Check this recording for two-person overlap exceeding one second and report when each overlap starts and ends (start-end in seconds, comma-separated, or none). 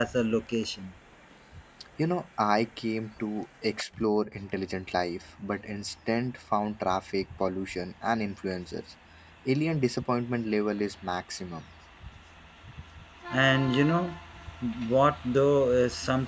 none